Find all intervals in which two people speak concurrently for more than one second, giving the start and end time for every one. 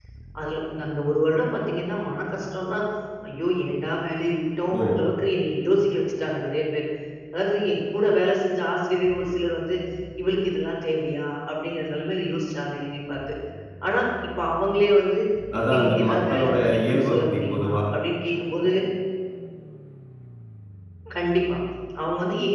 15.6-17.8

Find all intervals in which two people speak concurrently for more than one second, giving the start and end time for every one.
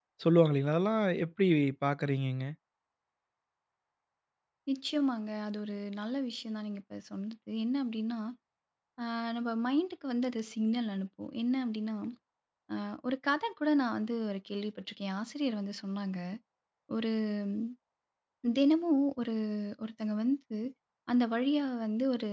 none

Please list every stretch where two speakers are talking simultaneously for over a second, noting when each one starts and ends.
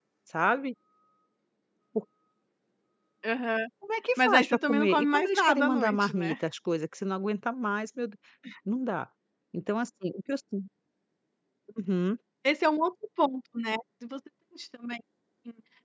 4.2-6.3

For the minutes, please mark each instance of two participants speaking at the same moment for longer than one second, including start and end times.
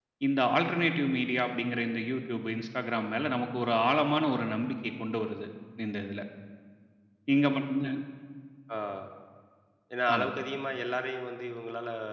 none

